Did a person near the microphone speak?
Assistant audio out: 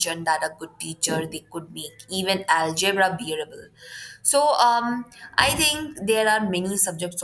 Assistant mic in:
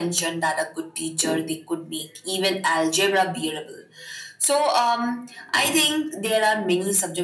No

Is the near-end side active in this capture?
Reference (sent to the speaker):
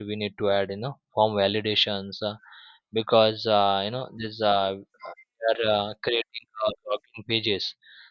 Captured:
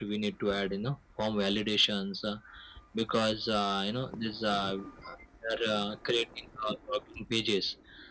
No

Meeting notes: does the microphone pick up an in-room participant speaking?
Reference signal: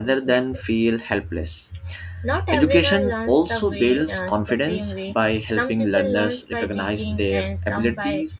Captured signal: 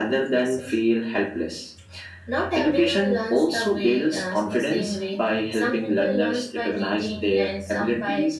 No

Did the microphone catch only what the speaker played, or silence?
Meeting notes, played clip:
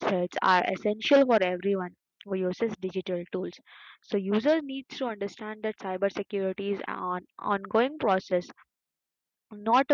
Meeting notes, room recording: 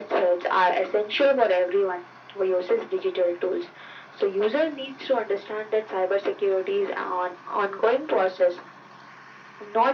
Yes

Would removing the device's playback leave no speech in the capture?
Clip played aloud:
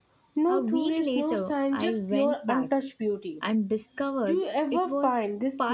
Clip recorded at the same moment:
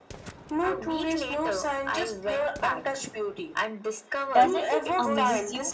No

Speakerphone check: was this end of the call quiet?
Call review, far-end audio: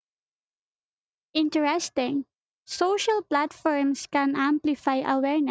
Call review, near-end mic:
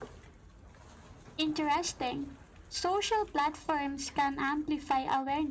Yes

